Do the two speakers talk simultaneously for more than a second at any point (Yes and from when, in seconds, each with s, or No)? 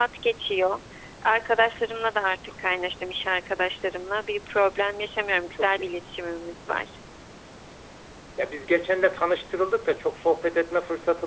No